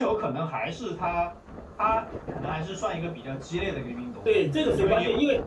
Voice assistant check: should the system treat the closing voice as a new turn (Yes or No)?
Yes